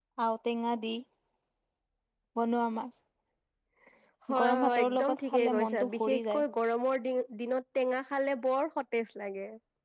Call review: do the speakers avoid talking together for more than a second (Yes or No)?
No